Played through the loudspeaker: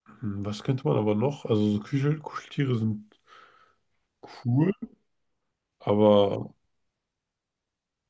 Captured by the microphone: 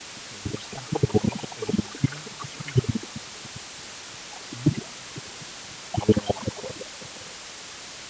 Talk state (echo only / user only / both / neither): echo only